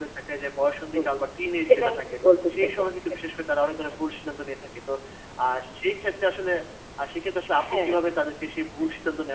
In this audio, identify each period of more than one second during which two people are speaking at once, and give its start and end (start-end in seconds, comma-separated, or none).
none